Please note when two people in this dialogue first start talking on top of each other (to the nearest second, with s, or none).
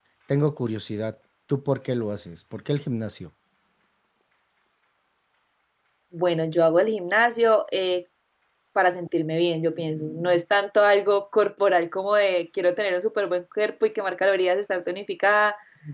none